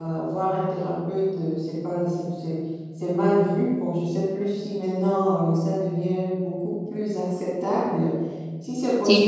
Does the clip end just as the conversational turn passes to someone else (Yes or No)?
No